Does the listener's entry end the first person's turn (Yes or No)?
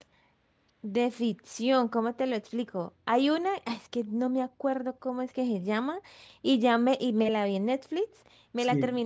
No